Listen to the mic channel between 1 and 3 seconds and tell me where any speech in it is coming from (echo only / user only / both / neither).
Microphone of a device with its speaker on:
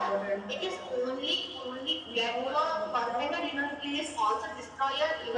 echo only